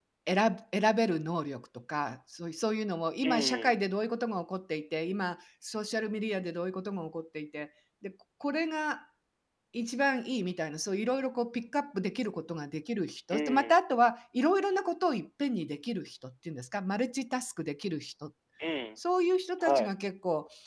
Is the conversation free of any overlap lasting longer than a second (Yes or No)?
Yes